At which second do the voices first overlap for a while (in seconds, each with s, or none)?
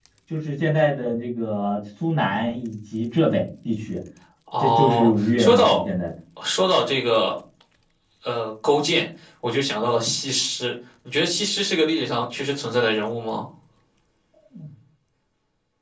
4.6 s